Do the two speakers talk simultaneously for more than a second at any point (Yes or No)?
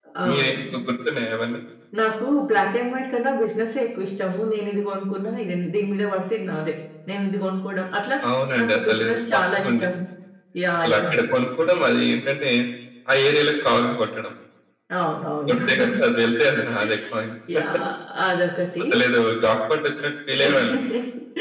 Yes